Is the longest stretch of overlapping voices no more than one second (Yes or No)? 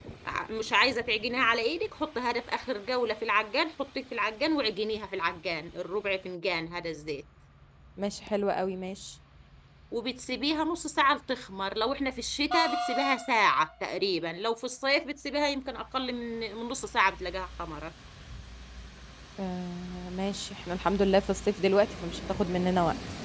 Yes